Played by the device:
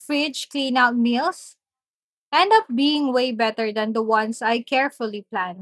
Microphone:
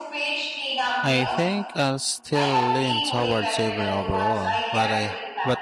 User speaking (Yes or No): Yes